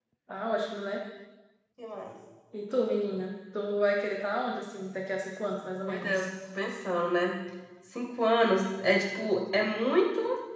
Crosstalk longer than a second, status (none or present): none